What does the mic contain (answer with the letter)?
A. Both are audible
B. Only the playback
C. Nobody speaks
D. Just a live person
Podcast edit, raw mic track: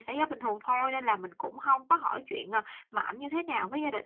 B